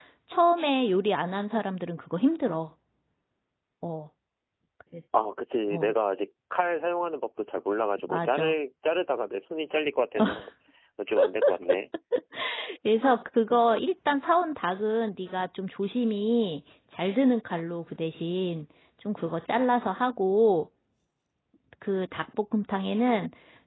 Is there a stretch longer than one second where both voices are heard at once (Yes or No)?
No